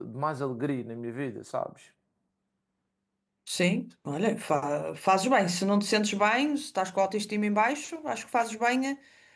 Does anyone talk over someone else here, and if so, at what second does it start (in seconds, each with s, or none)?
none